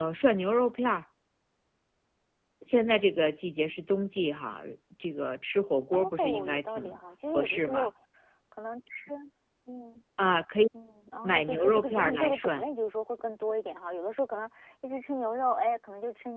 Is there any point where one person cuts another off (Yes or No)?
Yes